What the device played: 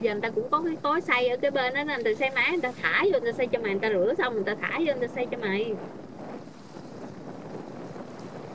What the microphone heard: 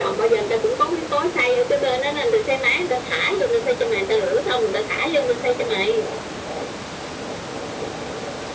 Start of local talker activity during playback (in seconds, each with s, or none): none